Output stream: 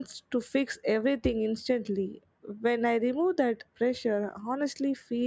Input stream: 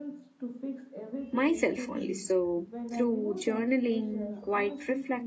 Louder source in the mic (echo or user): user